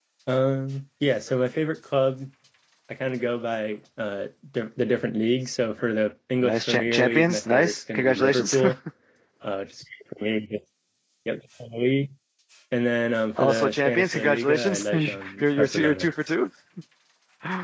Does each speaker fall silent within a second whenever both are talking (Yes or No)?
No